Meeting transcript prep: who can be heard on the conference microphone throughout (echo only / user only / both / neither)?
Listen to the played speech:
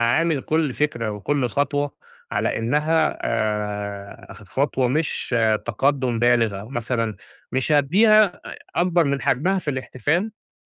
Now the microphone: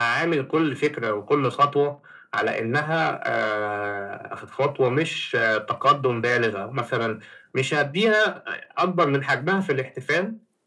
echo only